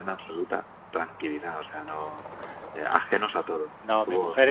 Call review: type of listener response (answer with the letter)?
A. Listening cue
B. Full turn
B